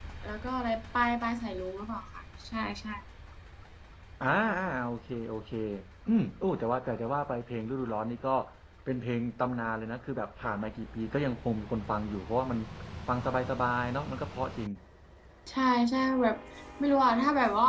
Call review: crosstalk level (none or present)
none